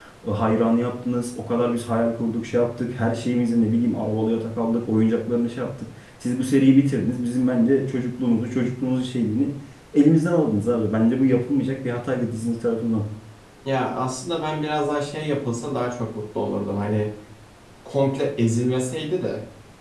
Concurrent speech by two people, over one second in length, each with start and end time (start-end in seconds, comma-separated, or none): none